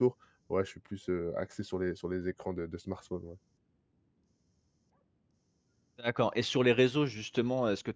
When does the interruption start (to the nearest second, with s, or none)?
none